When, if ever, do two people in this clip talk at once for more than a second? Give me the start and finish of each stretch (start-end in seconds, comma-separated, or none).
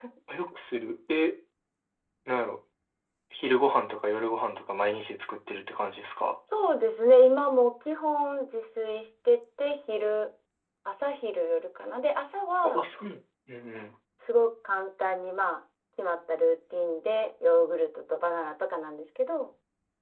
none